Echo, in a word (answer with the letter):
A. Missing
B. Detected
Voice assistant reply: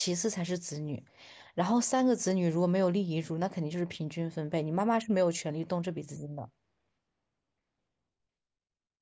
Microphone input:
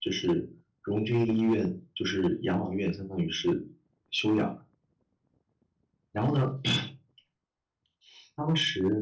A